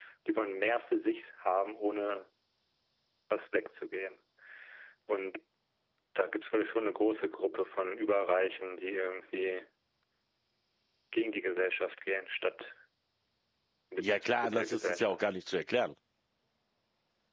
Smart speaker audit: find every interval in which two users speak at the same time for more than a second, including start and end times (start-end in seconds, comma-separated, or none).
14.0-15.2